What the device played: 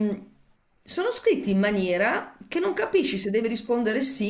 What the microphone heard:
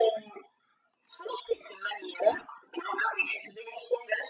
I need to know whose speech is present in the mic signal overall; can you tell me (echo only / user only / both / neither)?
echo only